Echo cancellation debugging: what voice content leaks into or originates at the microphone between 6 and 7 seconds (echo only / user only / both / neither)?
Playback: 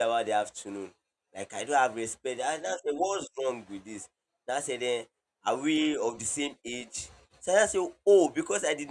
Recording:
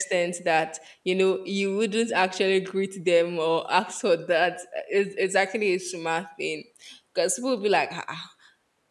user only